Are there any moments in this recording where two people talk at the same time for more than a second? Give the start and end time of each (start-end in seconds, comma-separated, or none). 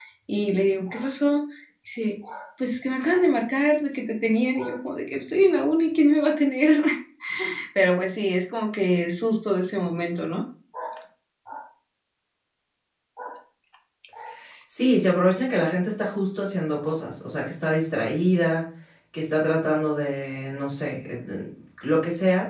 none